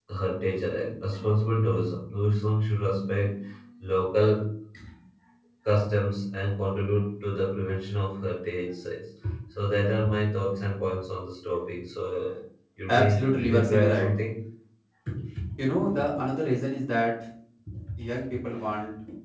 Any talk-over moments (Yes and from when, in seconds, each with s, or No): Yes, from 12.9 s